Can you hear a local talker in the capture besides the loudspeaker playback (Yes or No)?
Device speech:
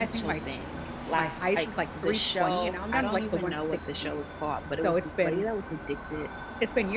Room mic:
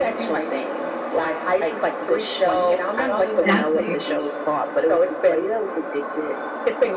Yes